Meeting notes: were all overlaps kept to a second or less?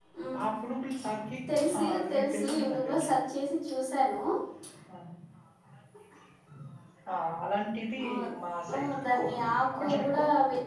No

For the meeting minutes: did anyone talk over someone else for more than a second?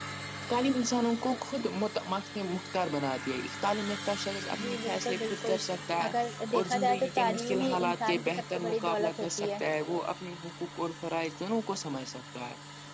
Yes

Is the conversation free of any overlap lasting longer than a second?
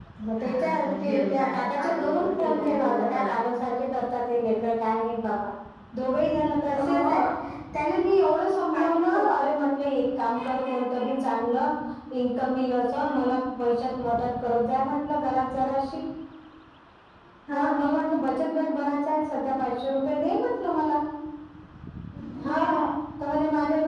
No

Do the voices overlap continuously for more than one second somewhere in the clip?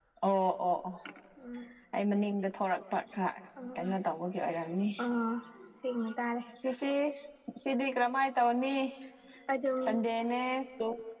No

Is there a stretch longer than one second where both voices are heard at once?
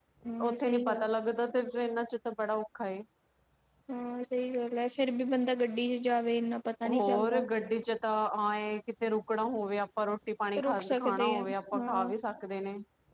Yes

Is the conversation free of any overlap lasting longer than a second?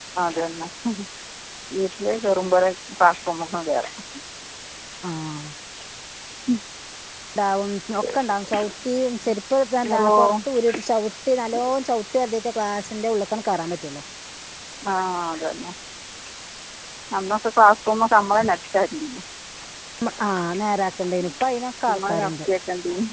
Yes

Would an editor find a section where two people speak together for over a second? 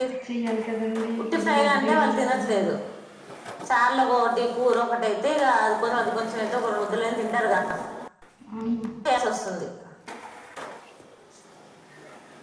Yes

